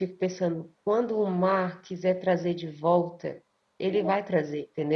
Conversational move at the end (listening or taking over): listening